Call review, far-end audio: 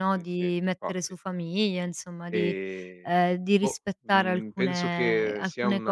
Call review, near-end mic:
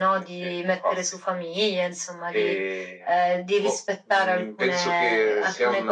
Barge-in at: none

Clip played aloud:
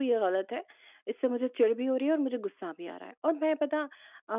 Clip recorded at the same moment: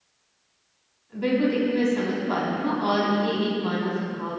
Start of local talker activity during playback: 1.2 s

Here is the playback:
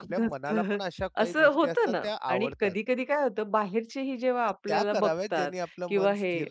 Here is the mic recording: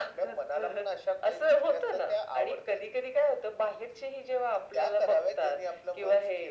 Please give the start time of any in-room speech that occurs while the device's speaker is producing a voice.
none

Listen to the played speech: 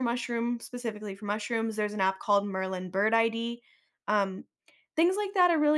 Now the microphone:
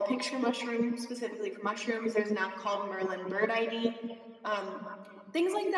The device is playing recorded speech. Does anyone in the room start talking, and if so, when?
none

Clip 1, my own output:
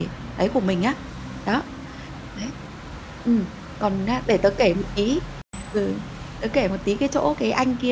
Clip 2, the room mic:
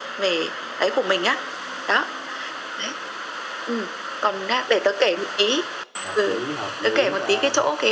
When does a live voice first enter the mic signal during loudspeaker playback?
6.0 s

